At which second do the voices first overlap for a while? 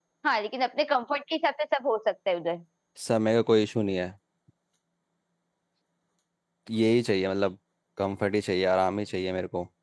none

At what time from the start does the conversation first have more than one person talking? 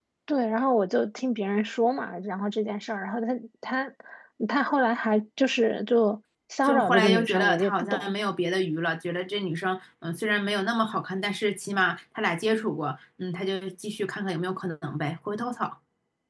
6.6 s

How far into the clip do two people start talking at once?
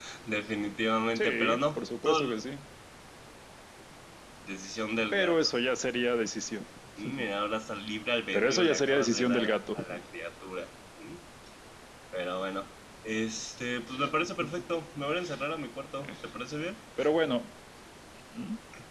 1.2 s

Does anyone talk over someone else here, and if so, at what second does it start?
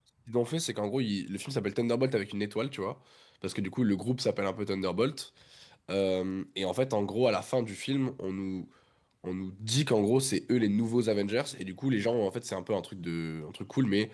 none

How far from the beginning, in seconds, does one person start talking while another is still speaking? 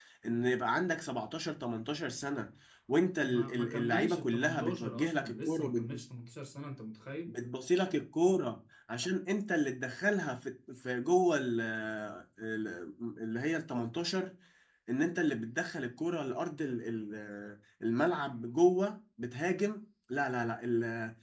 3.2 s

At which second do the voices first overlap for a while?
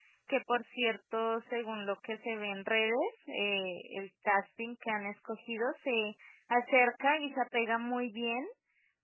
none

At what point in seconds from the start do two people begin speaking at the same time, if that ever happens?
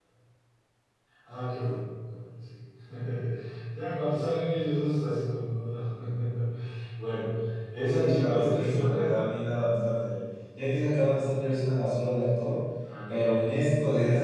7.9 s

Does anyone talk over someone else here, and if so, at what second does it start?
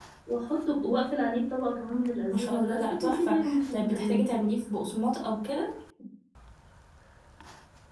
2.3 s

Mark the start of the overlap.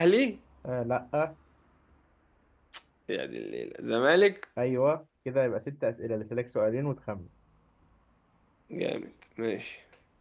none

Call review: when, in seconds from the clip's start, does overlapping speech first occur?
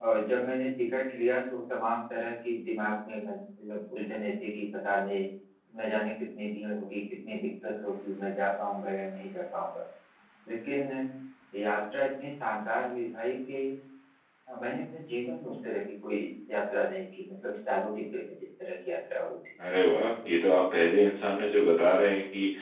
none

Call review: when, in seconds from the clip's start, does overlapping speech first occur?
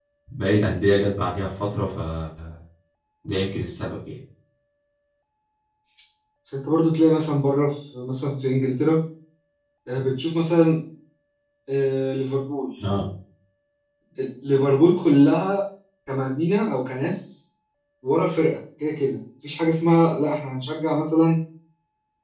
none

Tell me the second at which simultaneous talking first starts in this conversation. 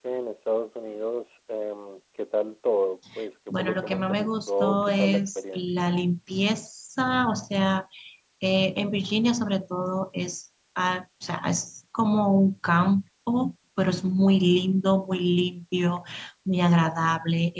3.5 s

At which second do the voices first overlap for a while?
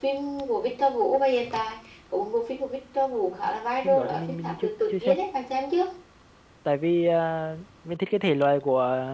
3.8 s

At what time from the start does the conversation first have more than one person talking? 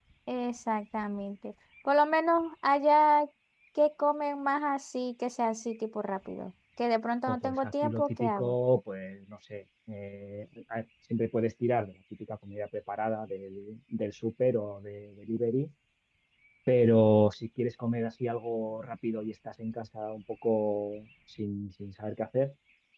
7.3 s

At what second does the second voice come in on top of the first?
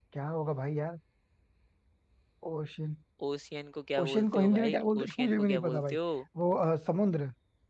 4.0 s

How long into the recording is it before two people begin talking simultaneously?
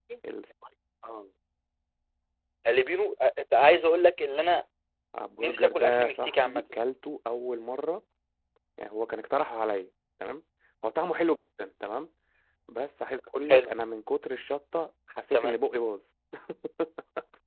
5.4 s

